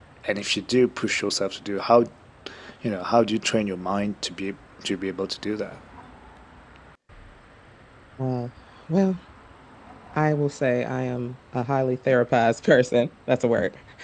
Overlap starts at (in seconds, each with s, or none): none